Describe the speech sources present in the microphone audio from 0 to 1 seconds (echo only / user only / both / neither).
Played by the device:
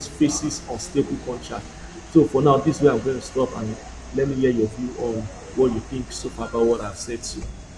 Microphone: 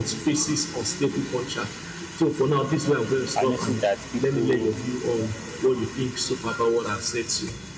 echo only